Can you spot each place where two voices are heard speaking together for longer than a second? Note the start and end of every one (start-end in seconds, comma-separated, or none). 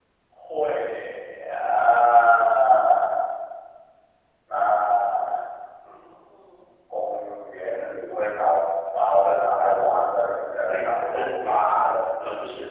10.7-12.0